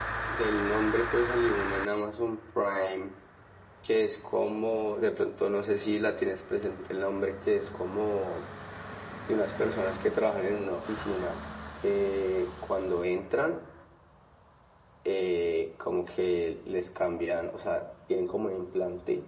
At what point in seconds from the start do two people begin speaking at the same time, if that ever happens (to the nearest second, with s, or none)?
none